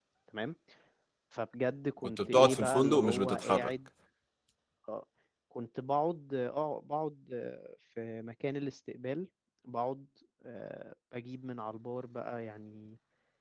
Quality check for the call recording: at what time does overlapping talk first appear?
2 s

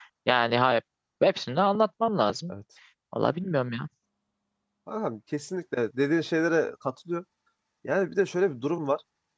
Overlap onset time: none

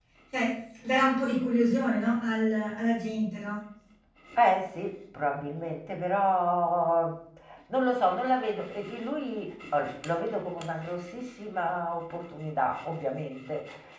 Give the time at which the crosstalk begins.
none

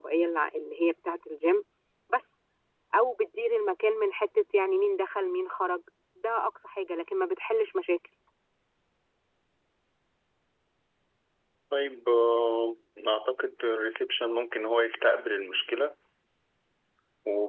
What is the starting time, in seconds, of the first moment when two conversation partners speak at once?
none

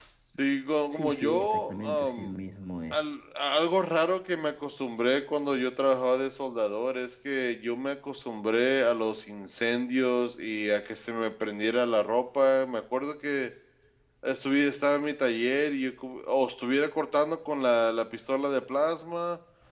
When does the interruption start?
1 s

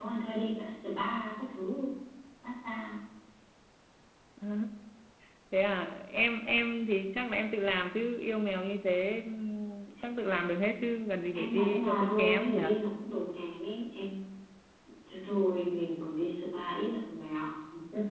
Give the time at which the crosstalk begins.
11 s

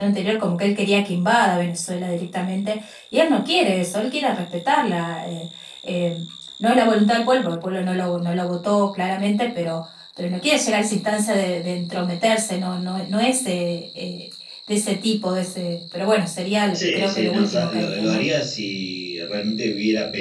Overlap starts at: 17 s

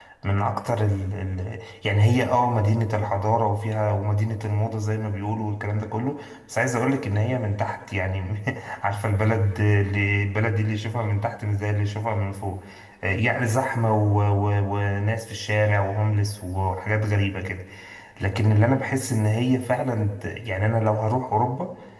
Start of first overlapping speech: none

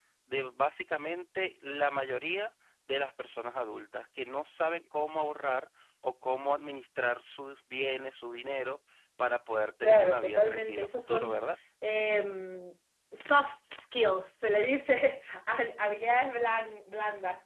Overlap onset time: 10 s

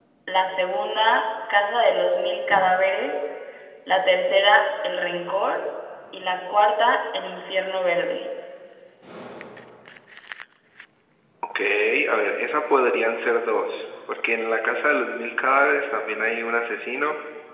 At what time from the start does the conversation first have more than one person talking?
none

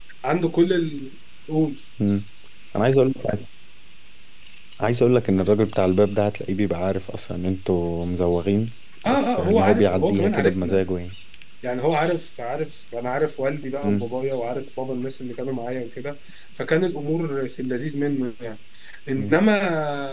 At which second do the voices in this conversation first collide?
9 s

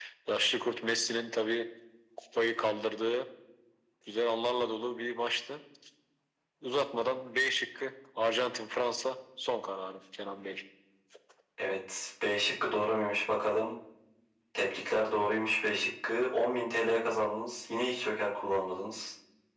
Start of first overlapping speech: none

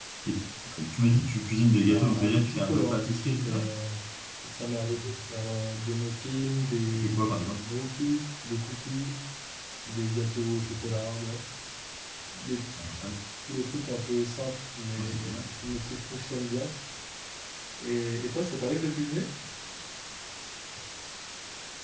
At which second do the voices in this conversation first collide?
2 s

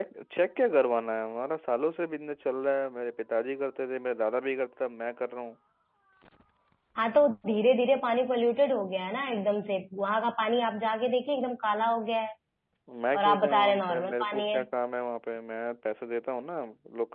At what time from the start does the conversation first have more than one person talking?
13 s

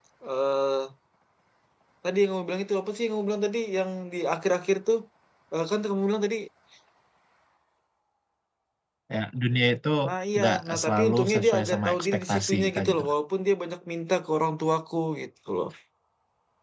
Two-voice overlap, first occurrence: 10 s

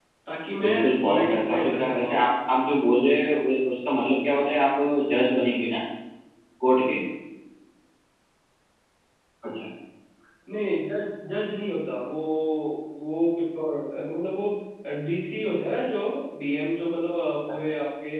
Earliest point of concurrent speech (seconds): 1 s

